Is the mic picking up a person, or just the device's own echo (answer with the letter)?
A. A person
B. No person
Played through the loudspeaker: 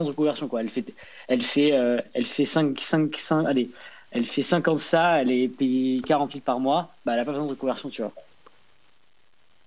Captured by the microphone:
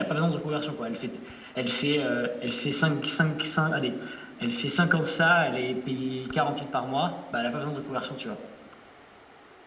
B